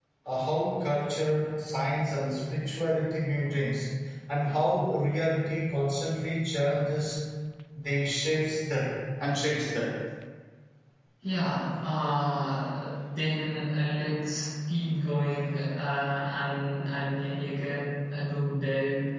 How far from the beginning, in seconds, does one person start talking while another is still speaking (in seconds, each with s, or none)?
none